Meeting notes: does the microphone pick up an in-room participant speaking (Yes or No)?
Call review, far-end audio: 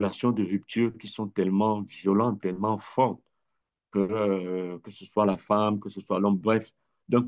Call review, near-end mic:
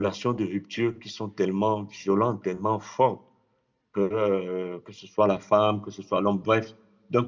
No